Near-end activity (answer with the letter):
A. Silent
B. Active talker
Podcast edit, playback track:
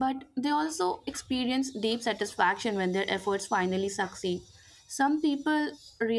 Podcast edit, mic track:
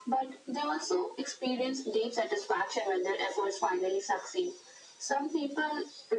A